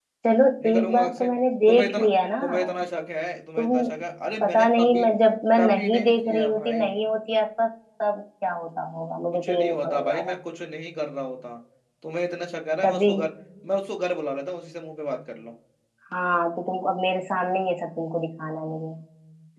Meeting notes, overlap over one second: present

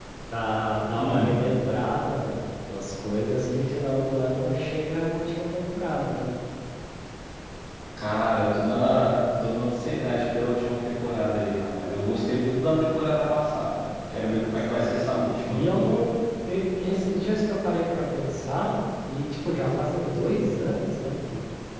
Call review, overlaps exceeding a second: none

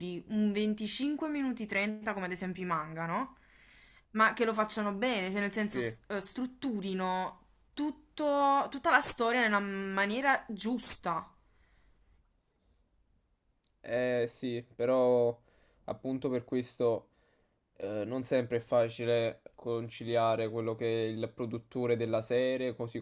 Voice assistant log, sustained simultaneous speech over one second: none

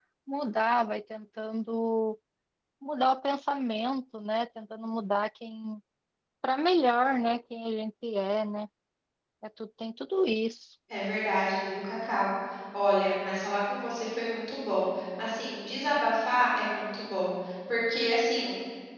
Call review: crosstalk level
none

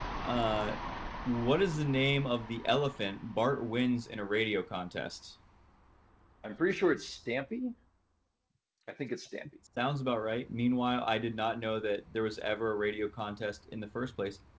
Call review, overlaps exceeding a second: none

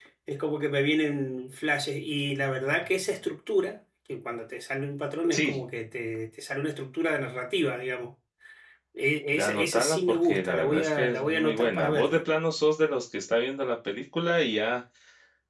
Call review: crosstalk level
present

